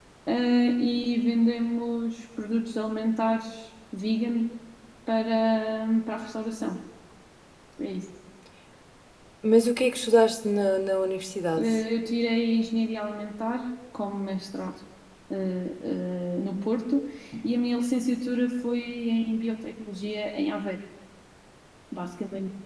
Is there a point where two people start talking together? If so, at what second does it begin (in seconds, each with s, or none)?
none